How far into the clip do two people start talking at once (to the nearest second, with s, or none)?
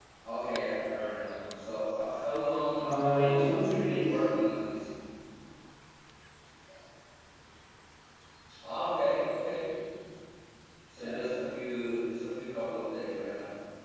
3 s